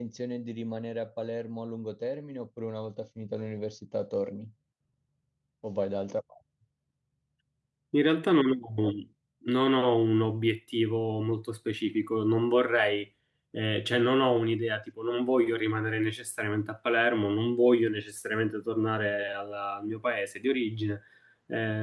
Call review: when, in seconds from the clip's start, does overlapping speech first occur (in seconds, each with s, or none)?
none